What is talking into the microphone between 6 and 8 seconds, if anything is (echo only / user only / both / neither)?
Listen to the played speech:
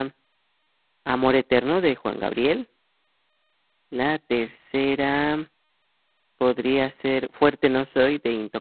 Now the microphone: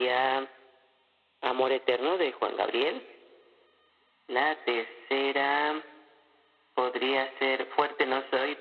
echo only